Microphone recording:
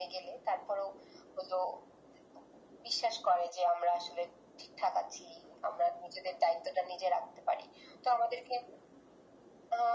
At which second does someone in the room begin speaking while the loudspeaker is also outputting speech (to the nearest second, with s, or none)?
none